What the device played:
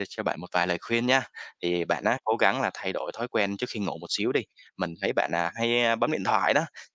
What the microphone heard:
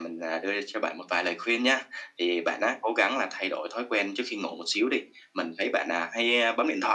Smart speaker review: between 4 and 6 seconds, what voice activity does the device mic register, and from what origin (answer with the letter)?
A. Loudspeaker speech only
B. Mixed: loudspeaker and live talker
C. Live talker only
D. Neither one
A